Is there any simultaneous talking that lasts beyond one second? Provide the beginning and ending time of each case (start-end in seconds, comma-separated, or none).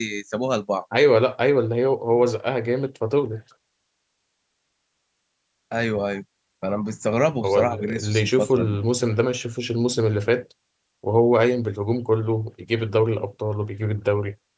7.4-8.8